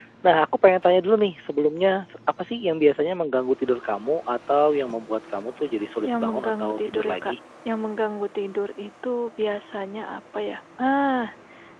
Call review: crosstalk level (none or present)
present